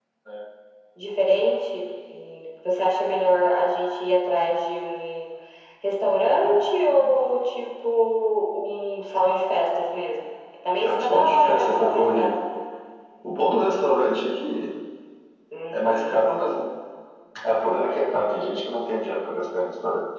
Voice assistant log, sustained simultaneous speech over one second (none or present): present